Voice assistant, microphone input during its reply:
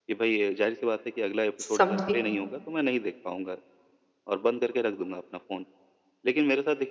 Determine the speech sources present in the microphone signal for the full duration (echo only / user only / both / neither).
both